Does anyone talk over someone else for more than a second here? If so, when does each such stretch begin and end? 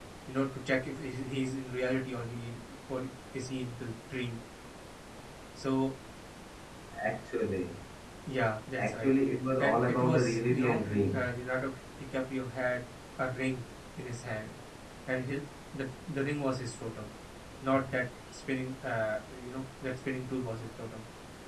9.6-11.3

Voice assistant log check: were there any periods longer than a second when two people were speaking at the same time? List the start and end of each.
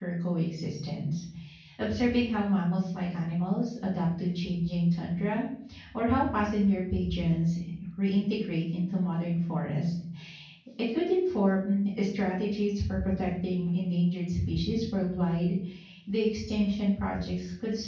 none

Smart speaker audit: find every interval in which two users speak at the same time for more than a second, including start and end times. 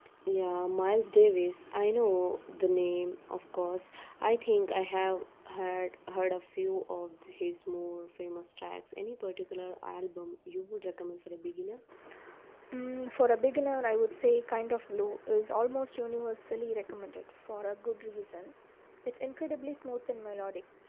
none

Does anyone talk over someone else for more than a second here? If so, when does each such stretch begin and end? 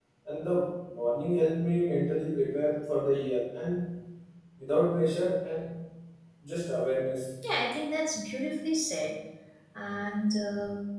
none

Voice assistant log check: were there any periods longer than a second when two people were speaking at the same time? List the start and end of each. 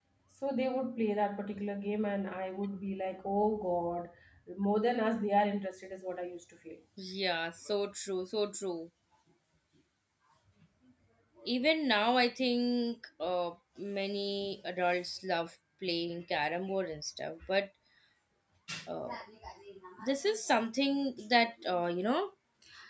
none

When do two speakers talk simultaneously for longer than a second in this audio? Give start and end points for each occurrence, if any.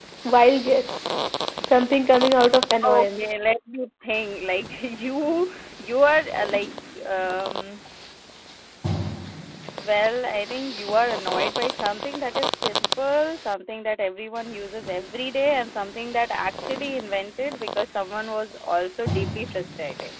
none

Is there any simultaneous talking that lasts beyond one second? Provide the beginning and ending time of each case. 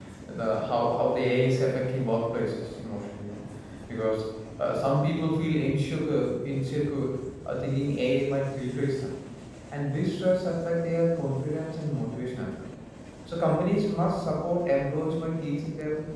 none

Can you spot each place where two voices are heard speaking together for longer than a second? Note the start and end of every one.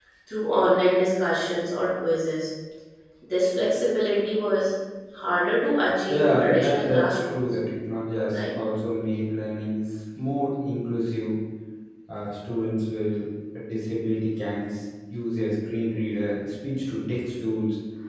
6.1-7.4

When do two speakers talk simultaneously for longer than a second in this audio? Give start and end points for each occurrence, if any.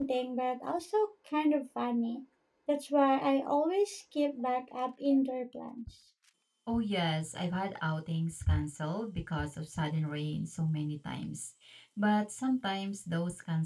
none

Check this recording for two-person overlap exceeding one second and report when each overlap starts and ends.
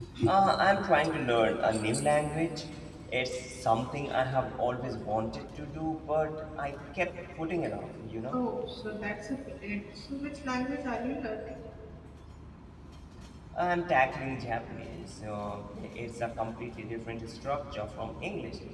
none

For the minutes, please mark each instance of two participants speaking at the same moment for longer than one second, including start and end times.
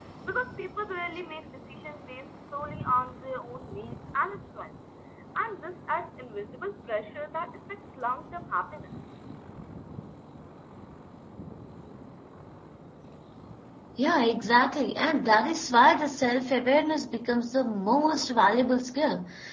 none

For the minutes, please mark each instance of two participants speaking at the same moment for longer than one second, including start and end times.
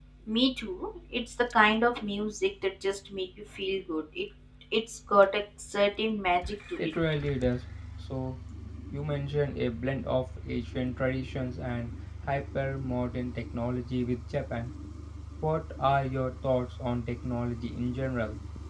none

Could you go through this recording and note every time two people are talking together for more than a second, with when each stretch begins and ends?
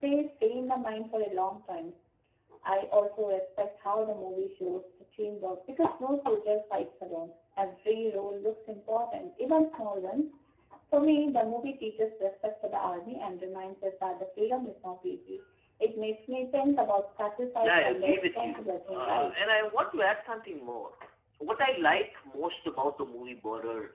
17.6-19.3

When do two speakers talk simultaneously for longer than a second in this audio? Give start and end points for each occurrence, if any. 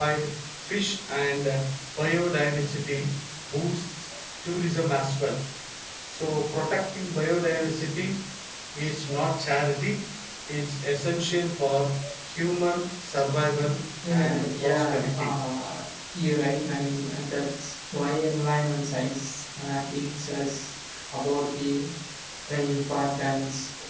14.1-15.3

